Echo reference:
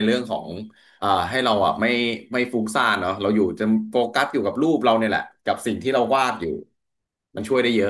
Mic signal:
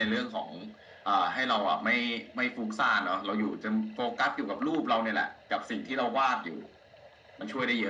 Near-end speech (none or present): none